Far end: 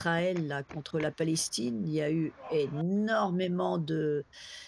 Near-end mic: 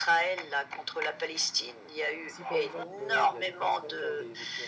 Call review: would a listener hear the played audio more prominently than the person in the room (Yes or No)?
Yes